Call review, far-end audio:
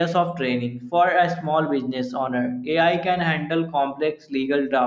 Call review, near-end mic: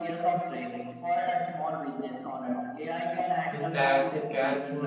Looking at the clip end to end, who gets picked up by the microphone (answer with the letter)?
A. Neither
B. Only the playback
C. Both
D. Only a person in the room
C